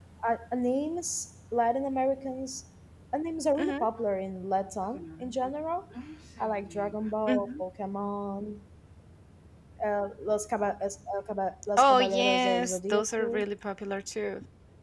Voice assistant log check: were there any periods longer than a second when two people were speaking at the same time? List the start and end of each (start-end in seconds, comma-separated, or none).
11.8-13.4